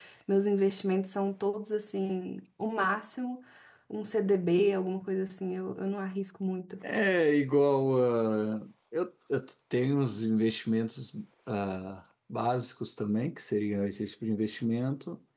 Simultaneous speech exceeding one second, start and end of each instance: none

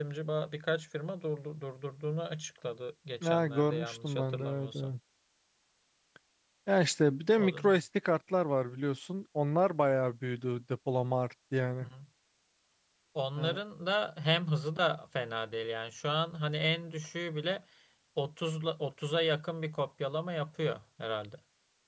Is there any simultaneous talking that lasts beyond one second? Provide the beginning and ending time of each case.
3.2-4.9

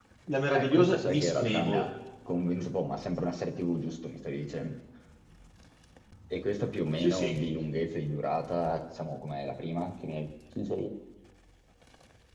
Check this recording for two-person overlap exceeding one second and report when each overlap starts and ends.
0.5-1.9

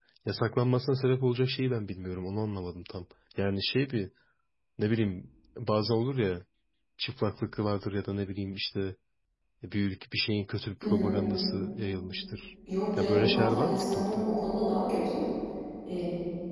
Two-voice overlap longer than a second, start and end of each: 13.0-14.2

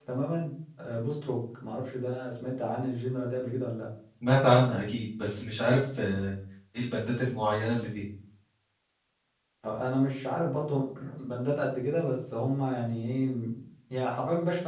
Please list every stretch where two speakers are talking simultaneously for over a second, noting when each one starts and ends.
none

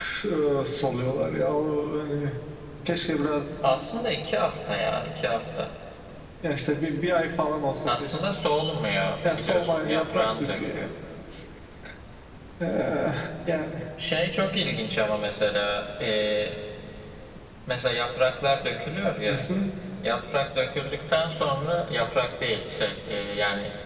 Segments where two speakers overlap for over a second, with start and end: 9.4-10.9

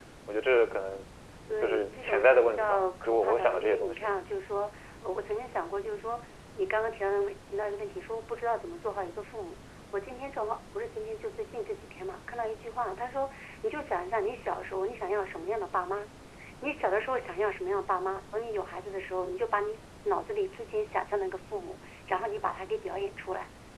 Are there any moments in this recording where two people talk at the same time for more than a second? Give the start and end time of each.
1.6-4.1

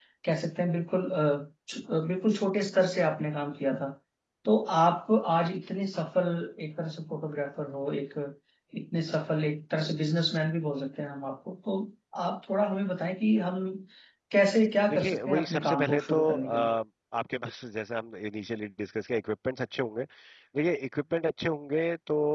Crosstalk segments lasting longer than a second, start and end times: 14.9-16.7

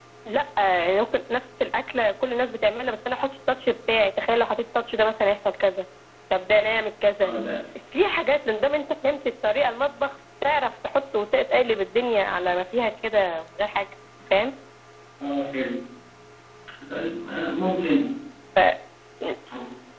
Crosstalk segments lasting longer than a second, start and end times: none

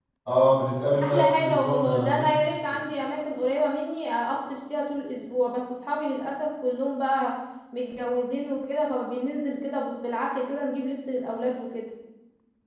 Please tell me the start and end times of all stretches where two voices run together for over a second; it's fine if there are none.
1.0-2.3

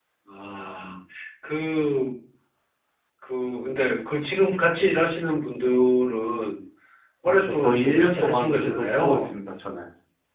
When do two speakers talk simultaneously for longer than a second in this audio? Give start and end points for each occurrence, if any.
7.2-9.3

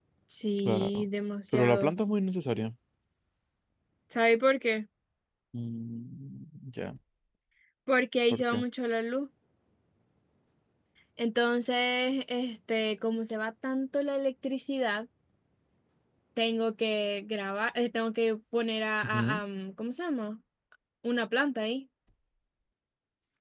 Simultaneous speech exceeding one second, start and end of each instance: none

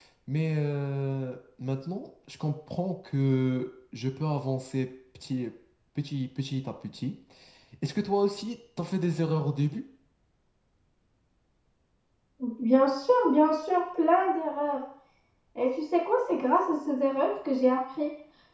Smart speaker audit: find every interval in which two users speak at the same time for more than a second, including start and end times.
none

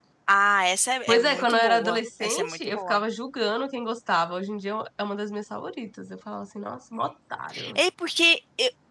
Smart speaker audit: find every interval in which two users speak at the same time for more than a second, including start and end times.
1.1-3.0

